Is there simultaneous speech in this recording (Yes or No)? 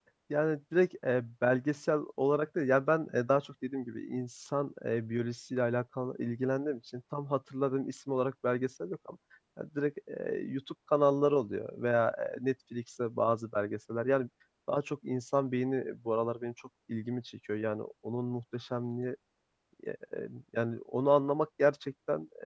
No